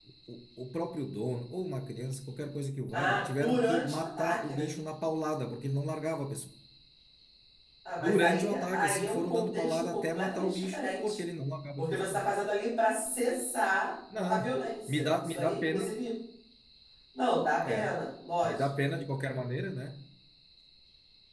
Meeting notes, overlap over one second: present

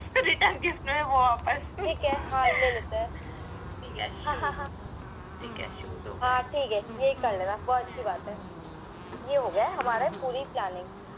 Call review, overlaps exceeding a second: none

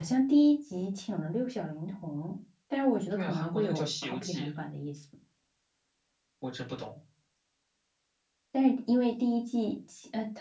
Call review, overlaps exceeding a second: present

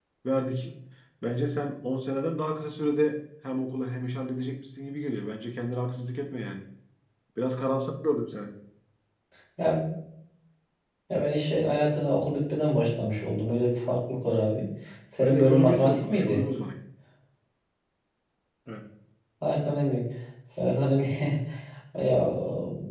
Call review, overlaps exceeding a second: present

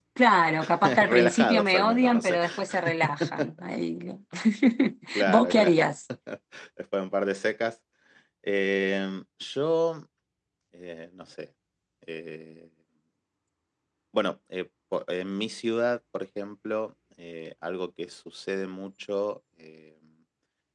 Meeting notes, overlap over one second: present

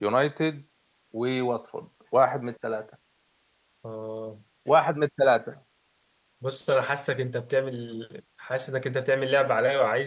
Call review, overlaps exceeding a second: none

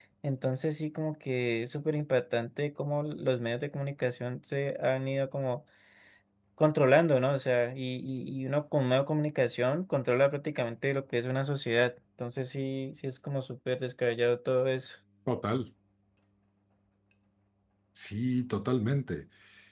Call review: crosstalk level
none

